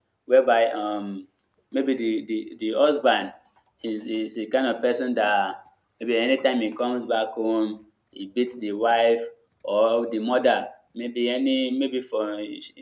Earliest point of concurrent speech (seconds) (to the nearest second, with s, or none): none